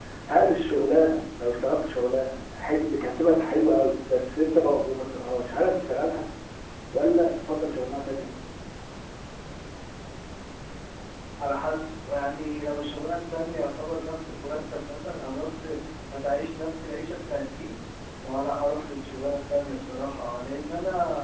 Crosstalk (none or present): none